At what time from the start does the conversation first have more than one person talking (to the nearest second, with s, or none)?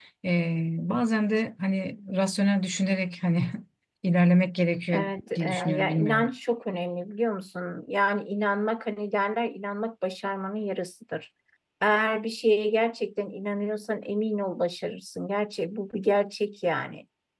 5 s